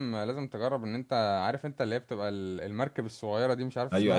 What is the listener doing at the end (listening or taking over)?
taking over